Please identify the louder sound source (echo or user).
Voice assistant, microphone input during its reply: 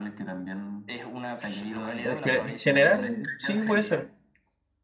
user